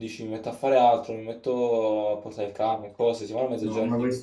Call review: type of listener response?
taking over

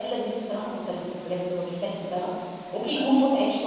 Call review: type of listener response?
listening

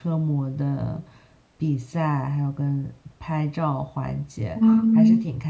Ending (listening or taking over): listening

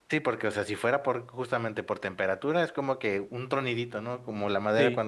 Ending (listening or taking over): listening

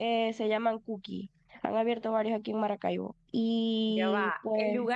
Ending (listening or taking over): taking over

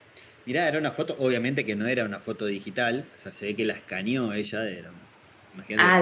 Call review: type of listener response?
taking over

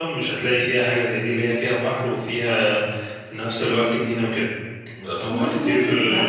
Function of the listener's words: taking over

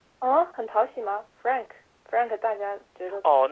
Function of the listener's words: taking over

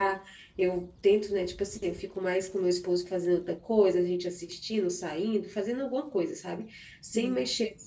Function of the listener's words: listening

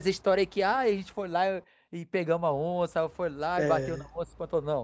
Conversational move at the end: listening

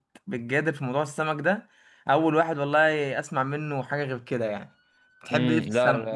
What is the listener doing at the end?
taking over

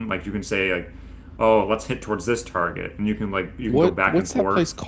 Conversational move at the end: taking over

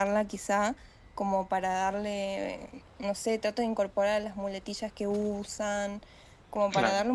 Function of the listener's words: listening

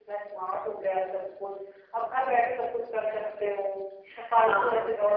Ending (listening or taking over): taking over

